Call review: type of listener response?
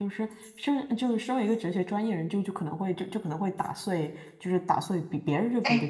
listening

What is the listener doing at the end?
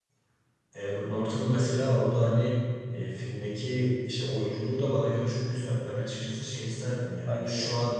listening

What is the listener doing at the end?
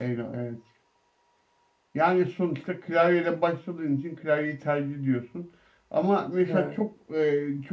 listening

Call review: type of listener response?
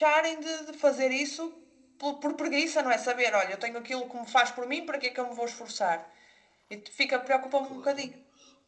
taking over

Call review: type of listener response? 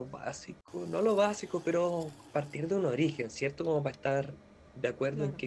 listening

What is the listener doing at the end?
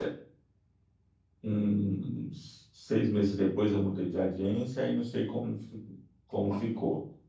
listening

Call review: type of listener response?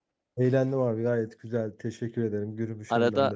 taking over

